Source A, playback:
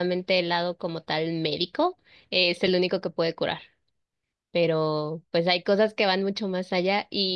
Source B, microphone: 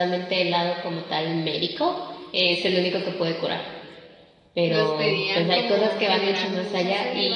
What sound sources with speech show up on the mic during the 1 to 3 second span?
echo only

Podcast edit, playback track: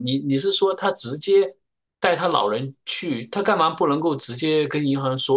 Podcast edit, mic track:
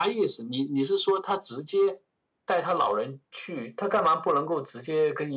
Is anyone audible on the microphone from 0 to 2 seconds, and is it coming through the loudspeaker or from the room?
echo only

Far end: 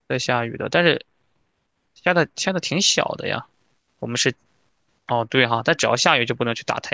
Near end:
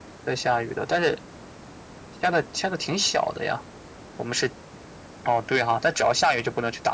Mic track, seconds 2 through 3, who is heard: echo only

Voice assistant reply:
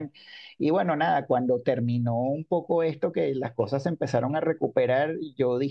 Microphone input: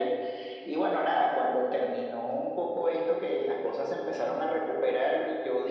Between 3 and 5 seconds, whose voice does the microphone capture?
echo only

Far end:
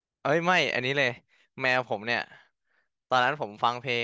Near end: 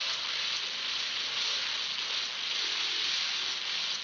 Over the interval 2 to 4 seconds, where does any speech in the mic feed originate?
neither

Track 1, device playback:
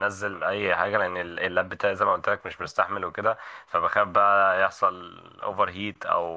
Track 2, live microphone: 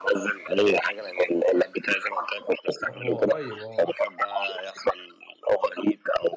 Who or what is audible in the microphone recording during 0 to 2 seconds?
echo only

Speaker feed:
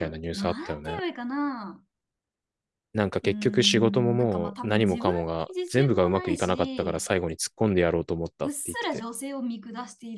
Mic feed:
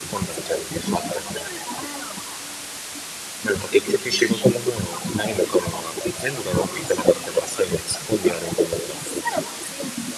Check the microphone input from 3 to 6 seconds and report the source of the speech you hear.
echo only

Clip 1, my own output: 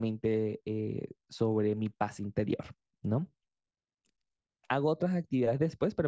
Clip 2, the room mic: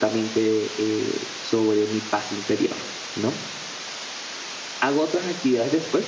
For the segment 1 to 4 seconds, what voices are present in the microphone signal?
echo only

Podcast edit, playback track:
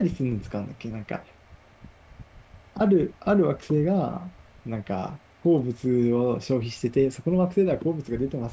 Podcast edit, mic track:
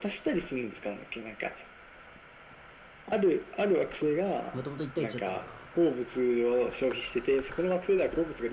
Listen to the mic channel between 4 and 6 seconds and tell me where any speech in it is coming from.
both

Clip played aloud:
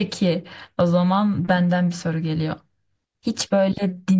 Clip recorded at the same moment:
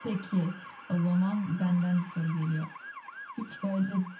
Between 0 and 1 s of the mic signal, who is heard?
echo only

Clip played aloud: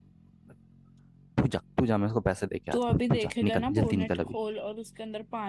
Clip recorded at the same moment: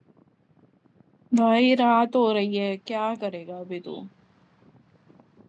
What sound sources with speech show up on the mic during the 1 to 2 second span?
user only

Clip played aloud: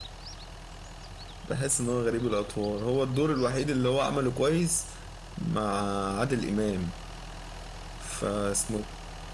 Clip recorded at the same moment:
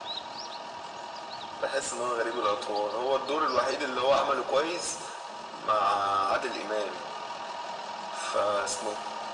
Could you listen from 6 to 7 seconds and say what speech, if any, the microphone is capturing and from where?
echo only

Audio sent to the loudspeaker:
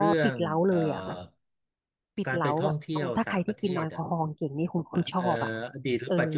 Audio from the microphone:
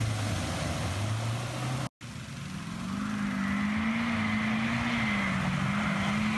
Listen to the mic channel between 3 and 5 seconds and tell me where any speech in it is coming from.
neither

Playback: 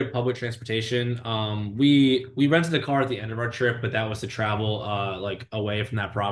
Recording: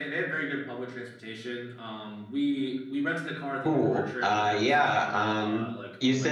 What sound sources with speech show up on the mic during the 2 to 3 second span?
echo only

